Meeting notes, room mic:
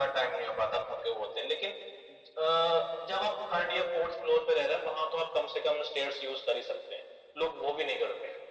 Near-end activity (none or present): none